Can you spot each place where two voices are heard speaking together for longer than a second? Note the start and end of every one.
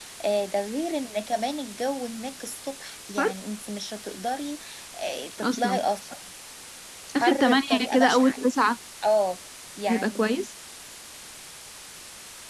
7.2-8.4

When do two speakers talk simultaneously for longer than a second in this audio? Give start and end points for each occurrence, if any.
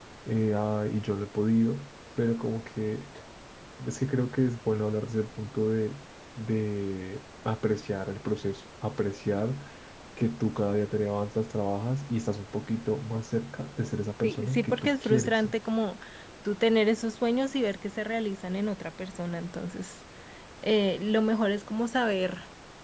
14.2-15.5

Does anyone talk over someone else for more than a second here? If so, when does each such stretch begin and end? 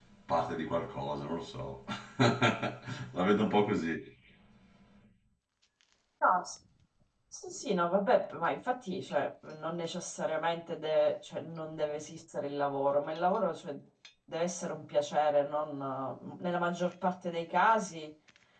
none

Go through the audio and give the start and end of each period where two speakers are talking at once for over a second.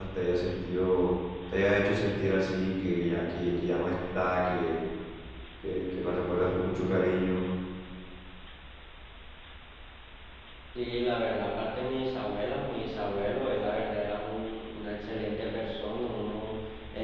none

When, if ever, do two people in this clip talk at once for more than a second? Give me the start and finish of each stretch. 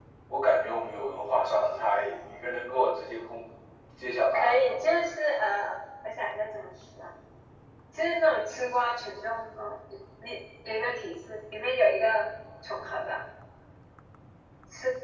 none

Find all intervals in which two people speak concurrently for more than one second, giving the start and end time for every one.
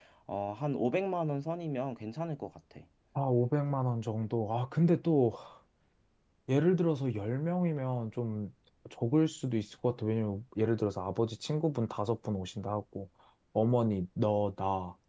none

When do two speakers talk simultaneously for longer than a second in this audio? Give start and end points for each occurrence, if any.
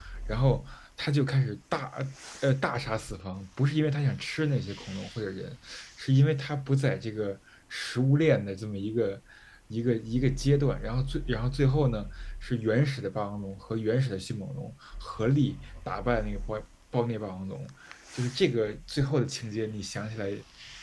none

